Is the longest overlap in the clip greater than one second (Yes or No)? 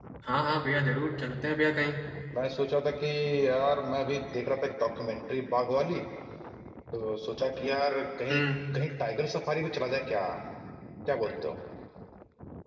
No